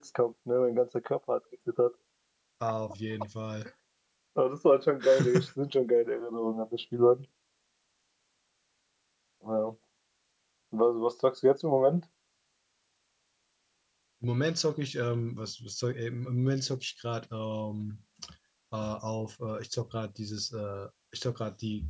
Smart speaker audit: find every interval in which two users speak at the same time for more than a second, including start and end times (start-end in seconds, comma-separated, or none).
none